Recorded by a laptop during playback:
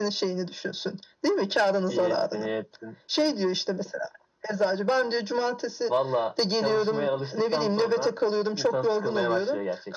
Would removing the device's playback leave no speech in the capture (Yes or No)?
Yes